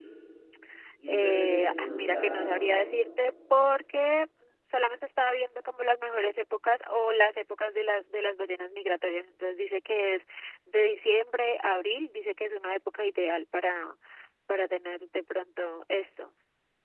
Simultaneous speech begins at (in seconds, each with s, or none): 1.1 s